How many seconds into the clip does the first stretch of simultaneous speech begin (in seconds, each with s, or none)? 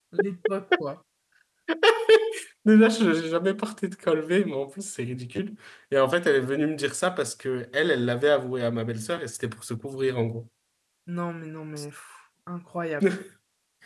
none